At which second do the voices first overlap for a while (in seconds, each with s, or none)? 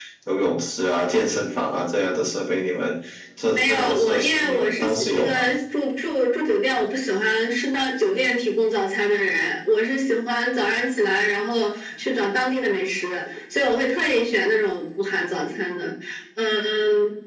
3.5 s